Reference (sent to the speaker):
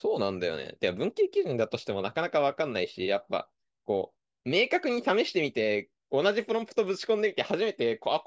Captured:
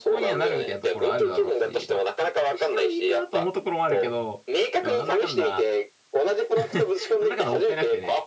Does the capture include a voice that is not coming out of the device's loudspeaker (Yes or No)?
Yes